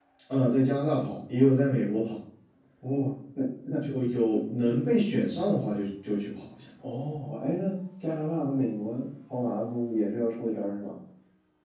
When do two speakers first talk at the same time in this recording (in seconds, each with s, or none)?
none